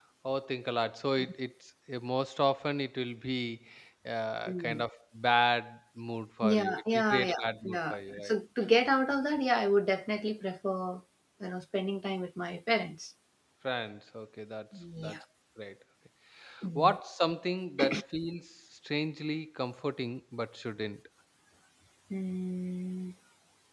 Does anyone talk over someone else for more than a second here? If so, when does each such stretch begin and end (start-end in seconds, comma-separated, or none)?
6.4-8.3